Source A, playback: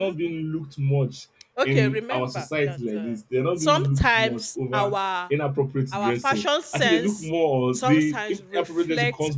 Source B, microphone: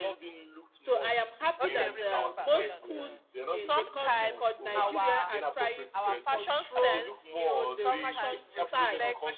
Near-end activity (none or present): present